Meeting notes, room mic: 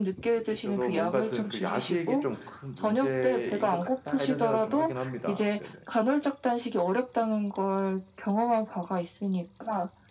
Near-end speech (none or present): present